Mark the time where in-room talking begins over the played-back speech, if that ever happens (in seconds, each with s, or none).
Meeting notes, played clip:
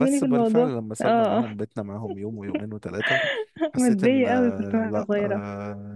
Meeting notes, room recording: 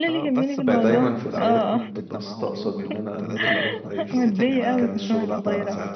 0.7 s